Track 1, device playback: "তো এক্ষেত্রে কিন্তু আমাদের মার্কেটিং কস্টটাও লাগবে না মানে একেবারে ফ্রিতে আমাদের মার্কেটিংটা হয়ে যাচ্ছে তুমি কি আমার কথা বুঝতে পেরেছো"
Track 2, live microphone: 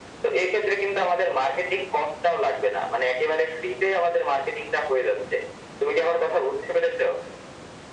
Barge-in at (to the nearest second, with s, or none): none